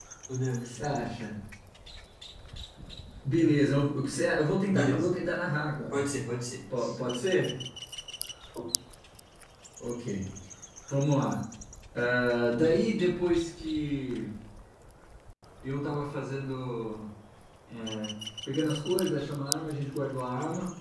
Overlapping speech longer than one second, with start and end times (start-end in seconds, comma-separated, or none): none